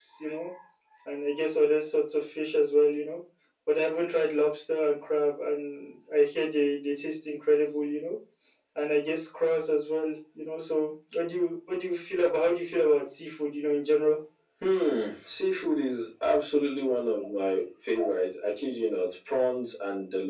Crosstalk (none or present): none